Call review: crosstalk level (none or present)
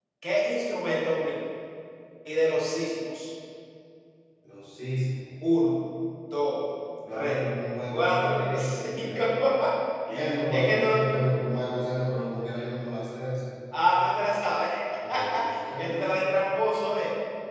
present